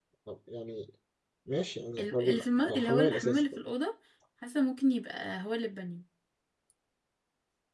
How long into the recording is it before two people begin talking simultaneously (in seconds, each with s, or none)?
2.0 s